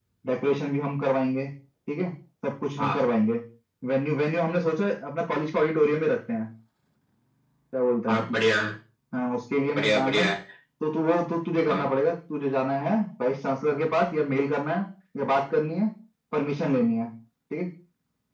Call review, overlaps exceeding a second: none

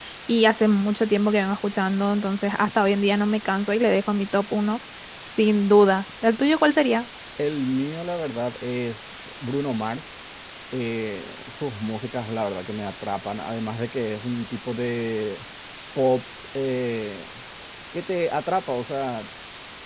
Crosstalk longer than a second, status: none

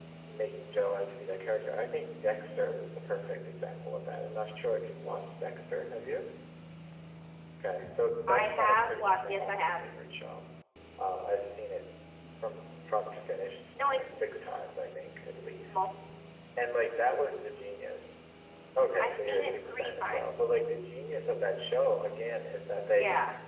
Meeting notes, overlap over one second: present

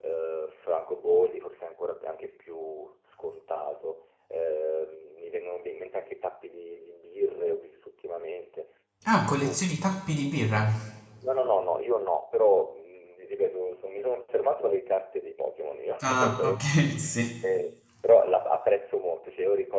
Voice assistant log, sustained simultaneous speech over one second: none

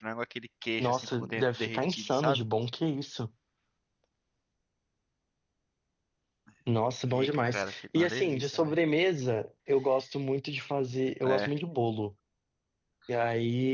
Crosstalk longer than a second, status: present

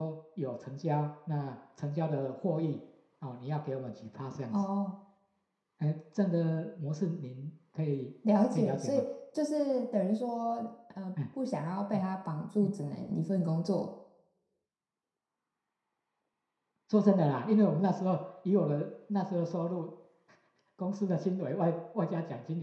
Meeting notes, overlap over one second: none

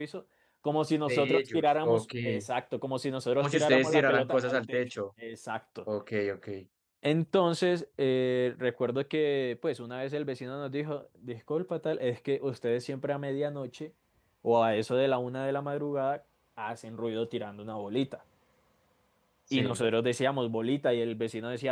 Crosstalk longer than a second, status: present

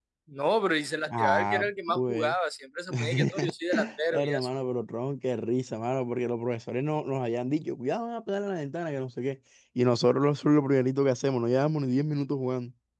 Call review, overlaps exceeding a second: present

